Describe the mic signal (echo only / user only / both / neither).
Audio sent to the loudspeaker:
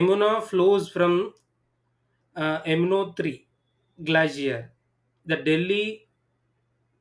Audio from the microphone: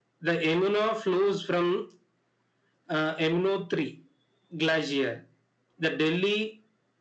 echo only